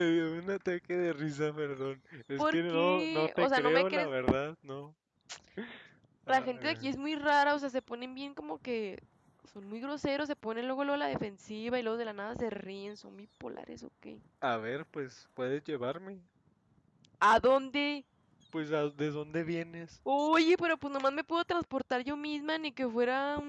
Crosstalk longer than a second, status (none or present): present